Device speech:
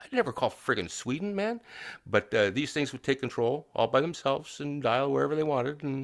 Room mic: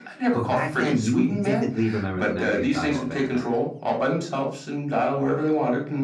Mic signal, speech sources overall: both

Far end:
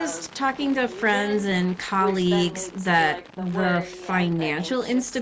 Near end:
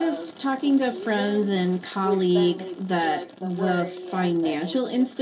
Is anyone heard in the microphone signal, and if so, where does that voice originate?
echo only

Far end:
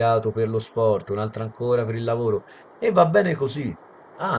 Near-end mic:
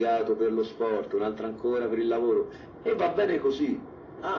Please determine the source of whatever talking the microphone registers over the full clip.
echo only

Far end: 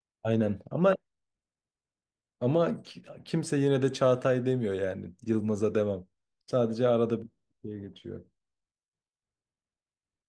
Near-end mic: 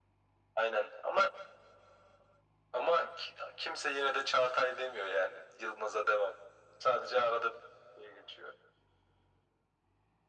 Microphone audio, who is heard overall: echo only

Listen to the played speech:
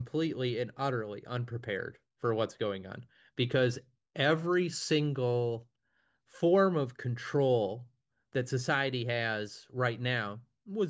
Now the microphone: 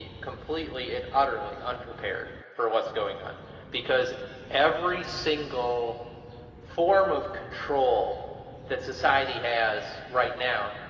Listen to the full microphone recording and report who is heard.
echo only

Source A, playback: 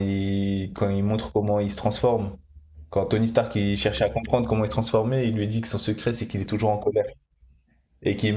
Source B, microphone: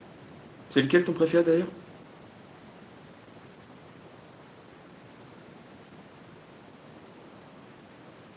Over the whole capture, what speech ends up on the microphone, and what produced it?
user only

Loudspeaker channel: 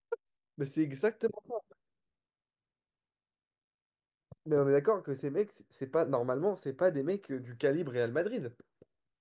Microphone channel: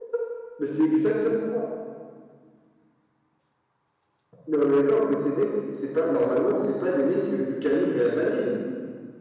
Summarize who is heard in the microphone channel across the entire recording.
echo only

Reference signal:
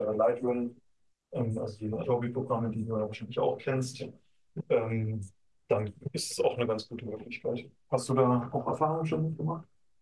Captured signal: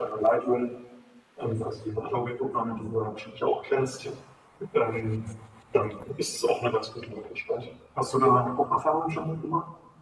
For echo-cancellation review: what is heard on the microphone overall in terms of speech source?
echo only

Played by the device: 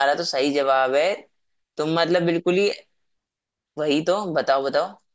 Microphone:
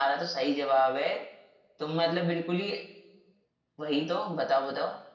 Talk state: echo only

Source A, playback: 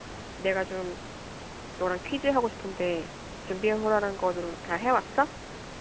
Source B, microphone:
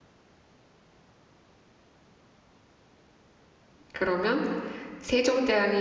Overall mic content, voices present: user only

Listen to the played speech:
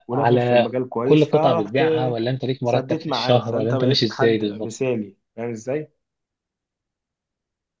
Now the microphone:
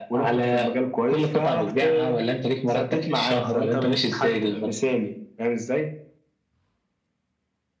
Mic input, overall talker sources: echo only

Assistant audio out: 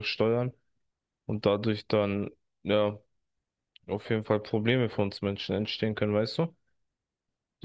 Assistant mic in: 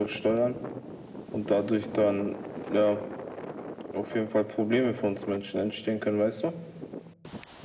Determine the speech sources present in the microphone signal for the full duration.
echo only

